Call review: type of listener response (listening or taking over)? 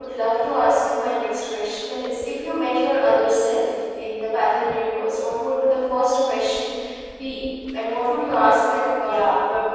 taking over